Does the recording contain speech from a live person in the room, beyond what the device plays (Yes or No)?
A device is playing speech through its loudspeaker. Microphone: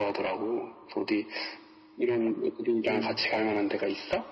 Yes